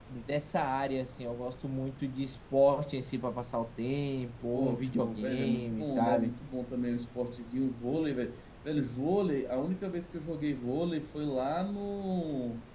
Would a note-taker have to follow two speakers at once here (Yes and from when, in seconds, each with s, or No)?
Yes, from 4.5 s